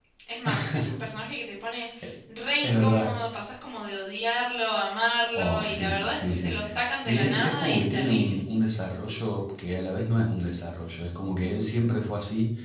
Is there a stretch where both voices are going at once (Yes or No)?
Yes